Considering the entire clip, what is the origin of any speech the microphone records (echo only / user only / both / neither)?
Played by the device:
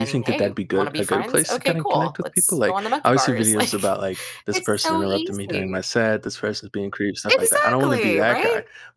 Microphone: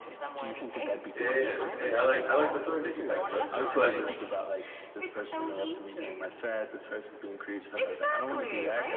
both